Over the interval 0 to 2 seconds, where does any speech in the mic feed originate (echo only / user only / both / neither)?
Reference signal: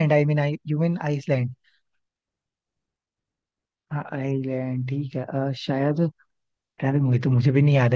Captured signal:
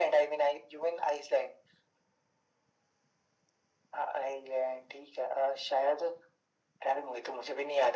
echo only